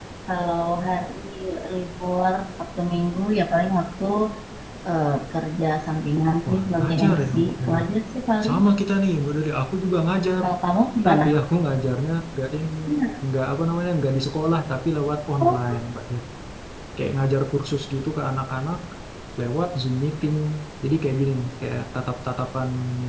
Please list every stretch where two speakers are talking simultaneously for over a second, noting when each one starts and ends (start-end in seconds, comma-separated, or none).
6.5-7.8